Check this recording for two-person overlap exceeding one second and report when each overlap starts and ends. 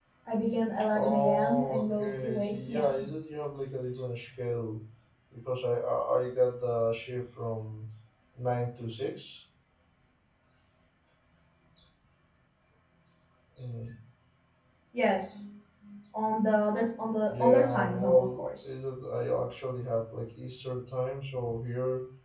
0.9-3.1, 17.3-18.8

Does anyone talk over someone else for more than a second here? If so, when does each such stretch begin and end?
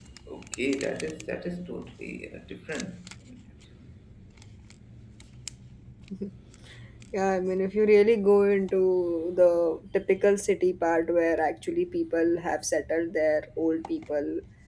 none

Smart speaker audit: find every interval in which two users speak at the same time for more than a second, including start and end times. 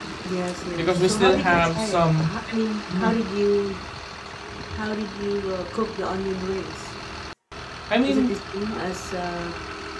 0.8-2.3

